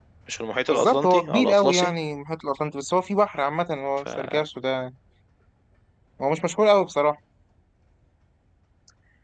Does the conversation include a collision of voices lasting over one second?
Yes, from 0.7 s

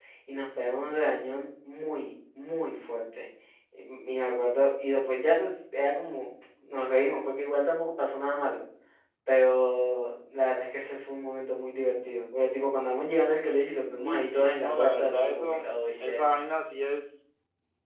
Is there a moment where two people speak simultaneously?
Yes, from 14.0 s

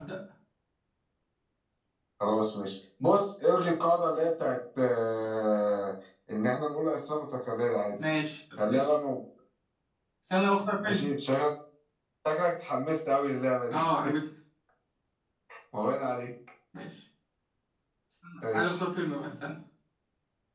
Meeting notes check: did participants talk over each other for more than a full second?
No

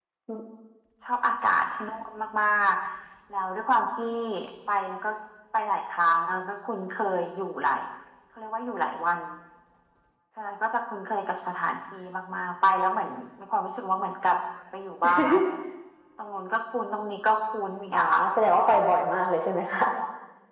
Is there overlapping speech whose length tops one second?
No

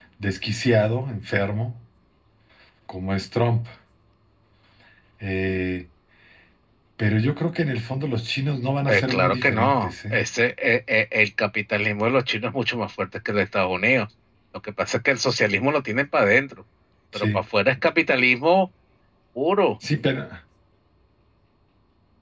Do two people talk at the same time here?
Yes, from 8.9 s

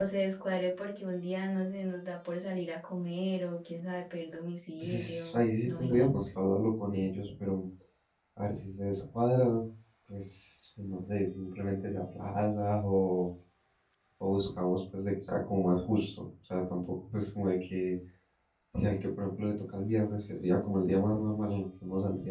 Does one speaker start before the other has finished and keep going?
Yes, from 4.8 s

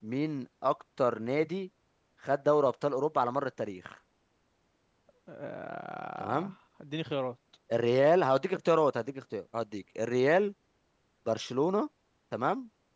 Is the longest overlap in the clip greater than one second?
No

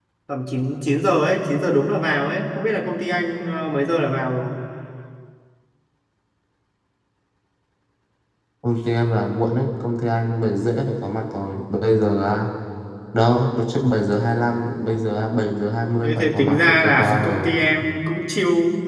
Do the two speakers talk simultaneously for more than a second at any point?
Yes, from 16.0 s

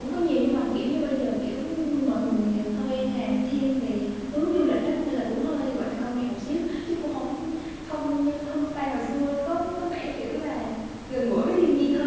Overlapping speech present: No

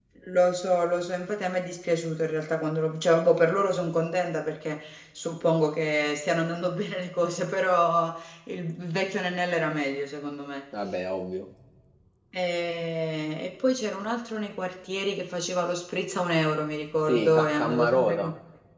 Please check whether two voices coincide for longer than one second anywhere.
Yes, from 17.1 s

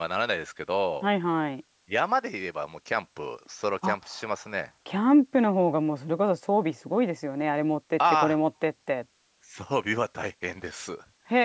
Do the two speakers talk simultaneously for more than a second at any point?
No

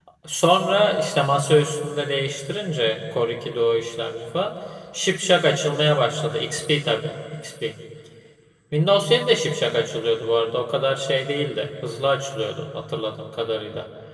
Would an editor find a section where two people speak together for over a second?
No

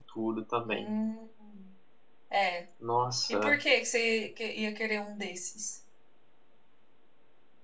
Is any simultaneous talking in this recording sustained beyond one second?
No

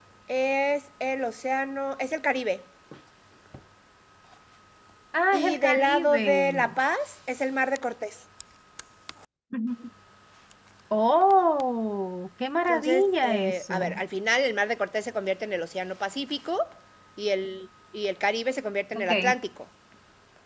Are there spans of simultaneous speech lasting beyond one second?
Yes, from 5.3 s

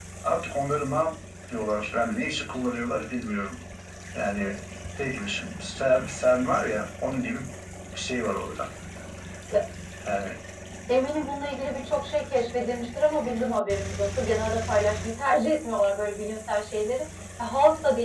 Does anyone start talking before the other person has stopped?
No

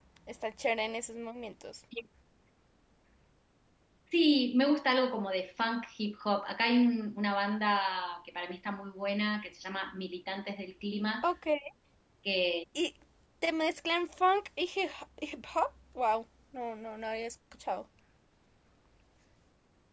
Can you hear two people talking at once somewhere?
No

